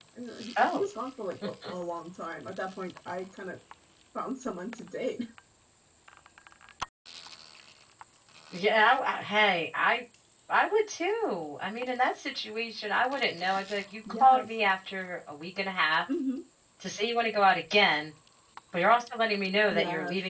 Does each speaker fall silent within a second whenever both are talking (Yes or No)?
Yes